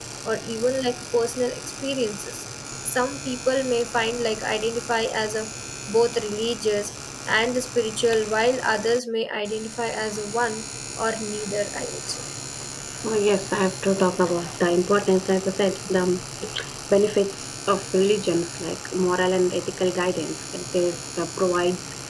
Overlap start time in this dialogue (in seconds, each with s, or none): none